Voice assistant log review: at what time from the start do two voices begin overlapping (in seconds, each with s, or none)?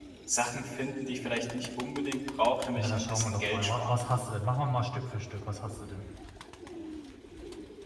2.8 s